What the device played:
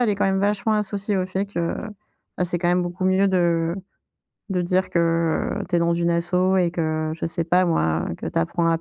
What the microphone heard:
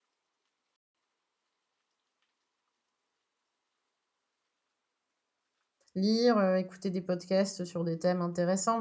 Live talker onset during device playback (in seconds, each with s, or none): 6.0 s